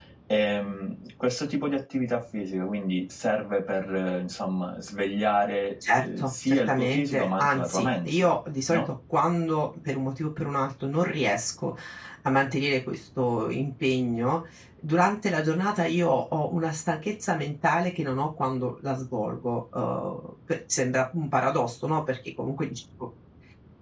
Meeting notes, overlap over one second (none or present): present